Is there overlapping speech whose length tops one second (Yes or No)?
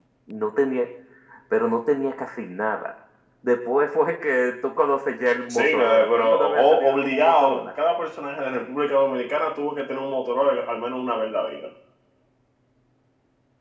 Yes